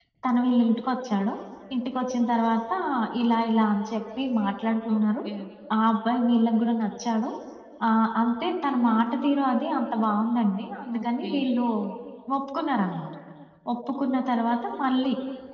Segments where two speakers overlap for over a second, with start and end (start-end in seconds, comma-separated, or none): none